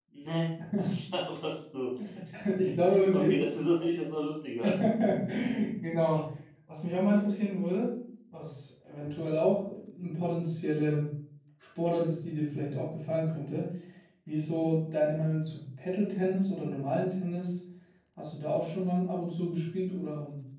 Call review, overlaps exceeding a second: none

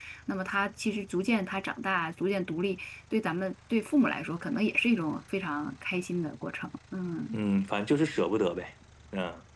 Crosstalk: none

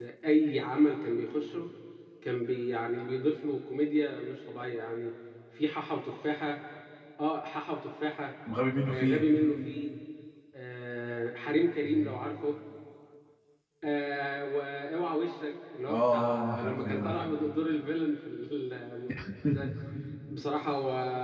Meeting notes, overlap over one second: present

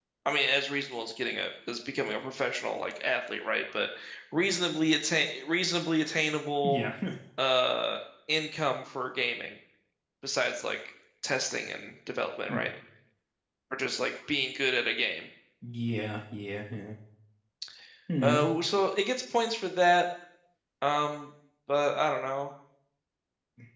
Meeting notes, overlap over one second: none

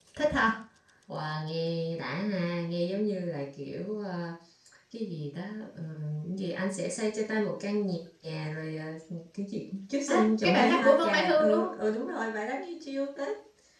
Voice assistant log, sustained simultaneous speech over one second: present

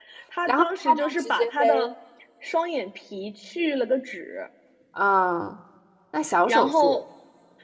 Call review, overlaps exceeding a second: present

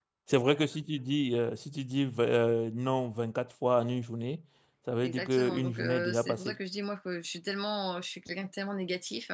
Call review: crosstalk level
present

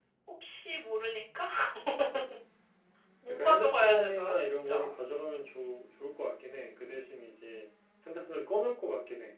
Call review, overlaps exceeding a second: present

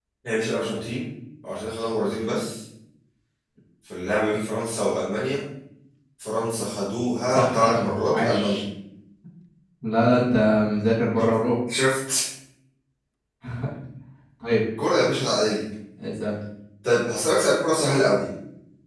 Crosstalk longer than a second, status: present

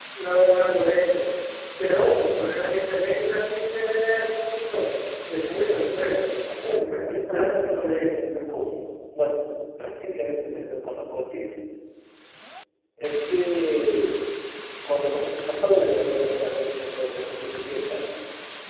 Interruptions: present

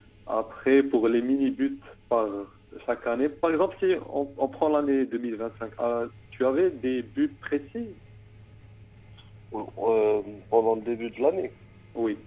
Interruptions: none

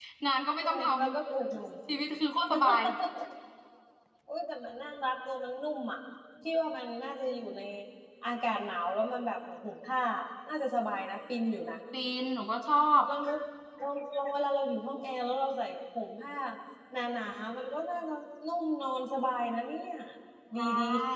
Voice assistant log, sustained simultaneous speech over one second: none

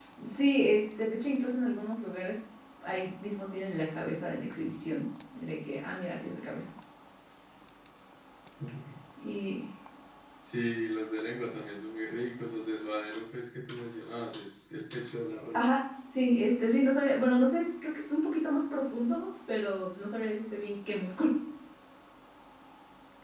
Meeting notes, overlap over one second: none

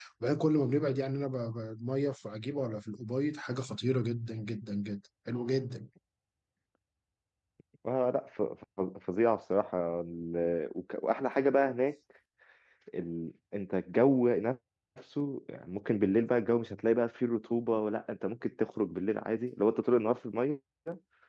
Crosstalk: none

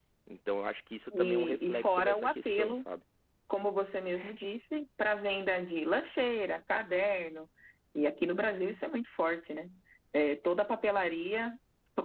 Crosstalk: present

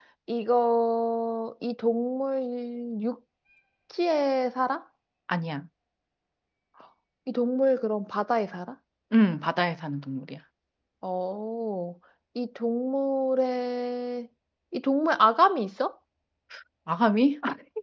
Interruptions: none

